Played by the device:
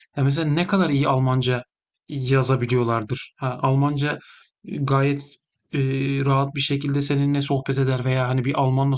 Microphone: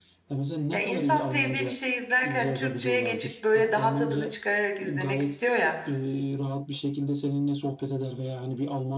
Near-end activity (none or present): present